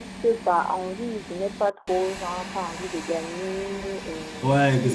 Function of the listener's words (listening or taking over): listening